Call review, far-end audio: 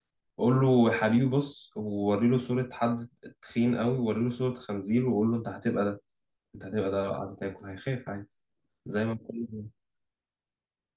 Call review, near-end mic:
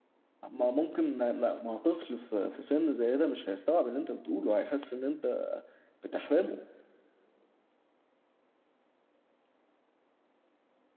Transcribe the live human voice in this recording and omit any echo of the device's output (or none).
ما ممكن ما, ما, ما طفل في, في سن زي ده مش هيستوعب اللي انت بتقوله هيحس ان انت بتحرمه